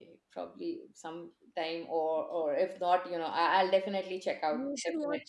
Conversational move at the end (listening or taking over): taking over